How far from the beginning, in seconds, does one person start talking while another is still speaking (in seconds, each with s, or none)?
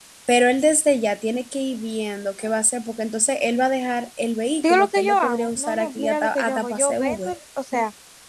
4.6 s